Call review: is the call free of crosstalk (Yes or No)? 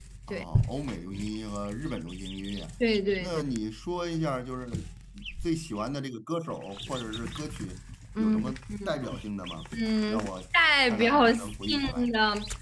No